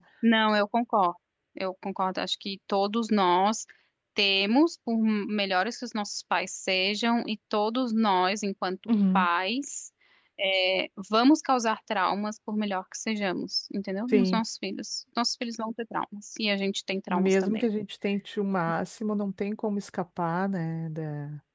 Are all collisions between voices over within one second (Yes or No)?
Yes